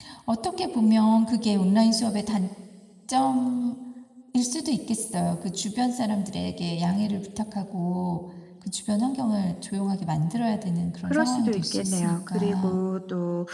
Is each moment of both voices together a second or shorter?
No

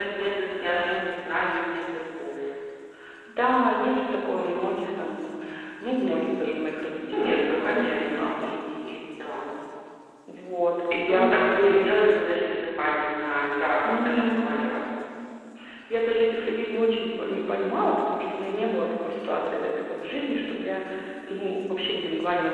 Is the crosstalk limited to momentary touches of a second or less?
No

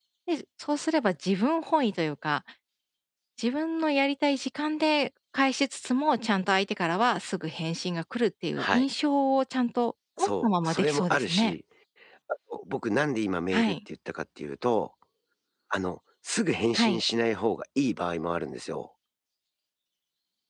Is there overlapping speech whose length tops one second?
Yes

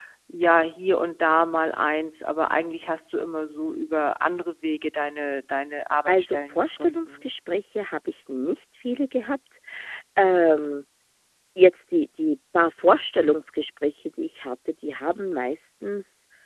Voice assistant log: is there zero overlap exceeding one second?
No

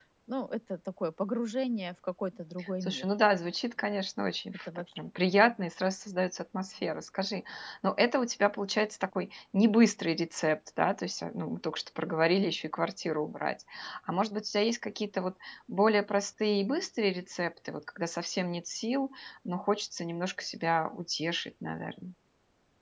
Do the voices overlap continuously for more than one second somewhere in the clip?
No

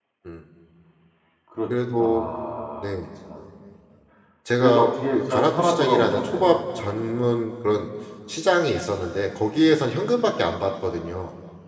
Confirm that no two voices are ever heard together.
No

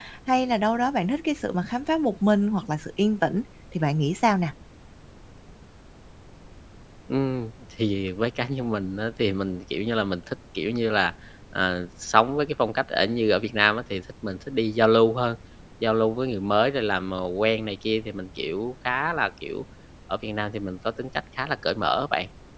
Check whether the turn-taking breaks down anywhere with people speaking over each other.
No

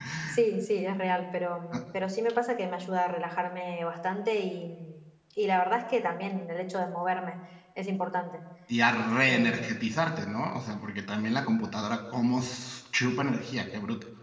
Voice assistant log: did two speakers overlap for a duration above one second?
No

